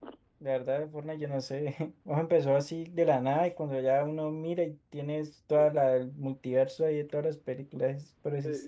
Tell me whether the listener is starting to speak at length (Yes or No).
Yes